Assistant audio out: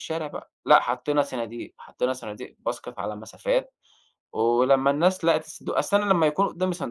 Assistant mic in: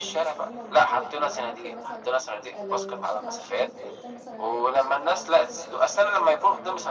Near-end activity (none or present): present